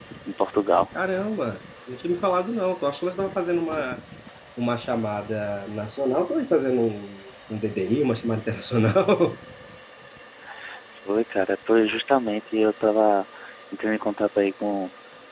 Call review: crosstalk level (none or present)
none